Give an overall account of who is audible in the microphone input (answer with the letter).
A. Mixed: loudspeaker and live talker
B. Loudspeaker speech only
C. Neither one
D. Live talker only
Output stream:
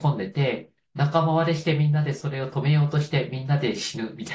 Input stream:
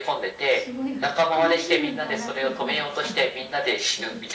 A